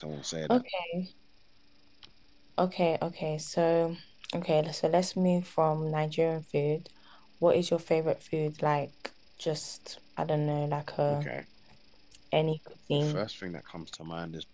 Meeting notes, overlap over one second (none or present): none